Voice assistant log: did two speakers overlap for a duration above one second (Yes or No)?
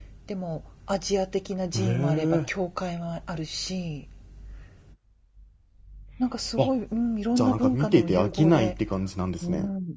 Yes